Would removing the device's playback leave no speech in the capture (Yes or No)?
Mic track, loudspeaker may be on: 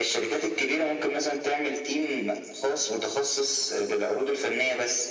Yes